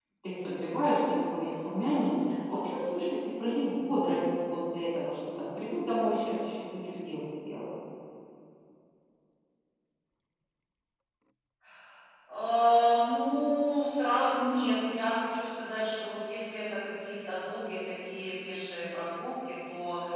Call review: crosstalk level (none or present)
none